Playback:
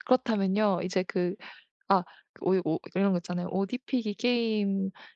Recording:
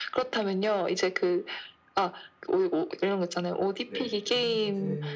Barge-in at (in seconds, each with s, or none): 3.9 s